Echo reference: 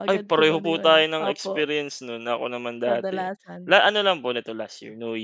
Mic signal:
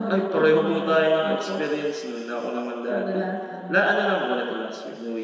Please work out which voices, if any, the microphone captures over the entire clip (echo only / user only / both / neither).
echo only